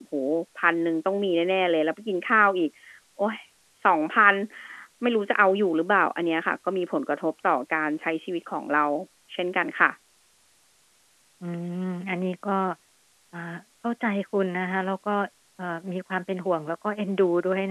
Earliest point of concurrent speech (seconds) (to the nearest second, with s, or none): none